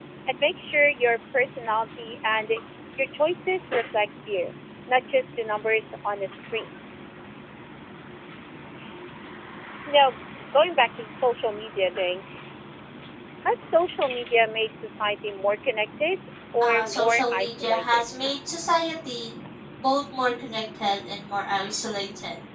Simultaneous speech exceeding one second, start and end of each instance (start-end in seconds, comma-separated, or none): 16.6-18.1